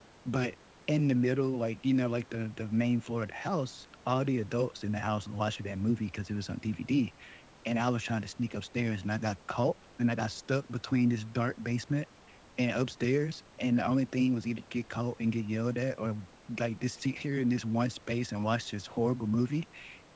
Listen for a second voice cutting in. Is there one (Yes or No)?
No